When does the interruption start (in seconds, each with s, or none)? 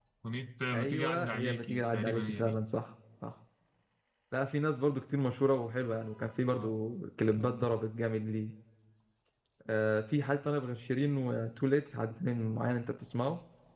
0.7 s